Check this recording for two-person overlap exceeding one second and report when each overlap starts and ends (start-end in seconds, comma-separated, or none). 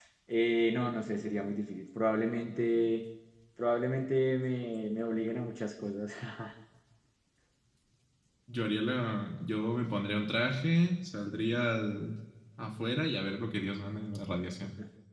none